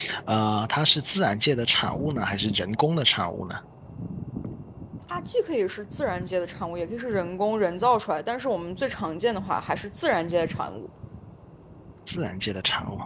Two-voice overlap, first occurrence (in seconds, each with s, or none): none